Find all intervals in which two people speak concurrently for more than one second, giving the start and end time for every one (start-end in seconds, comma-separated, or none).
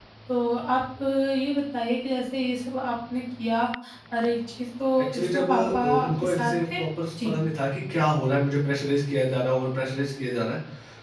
5.0-6.8